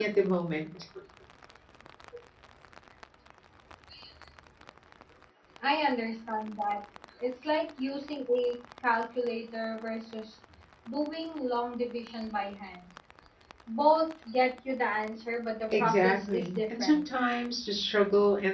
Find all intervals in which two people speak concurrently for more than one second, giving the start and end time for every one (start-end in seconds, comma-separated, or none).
15.8-17.0